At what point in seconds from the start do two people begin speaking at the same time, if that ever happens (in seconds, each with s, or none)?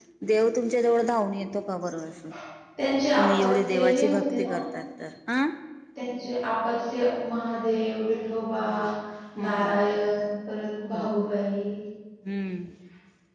3.2 s